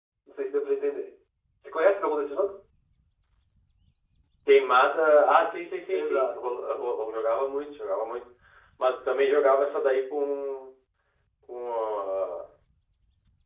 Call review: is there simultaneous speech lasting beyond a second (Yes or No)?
No